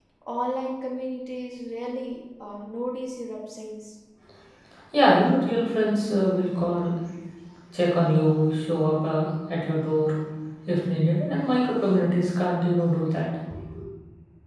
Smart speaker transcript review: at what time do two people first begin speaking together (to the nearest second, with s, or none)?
none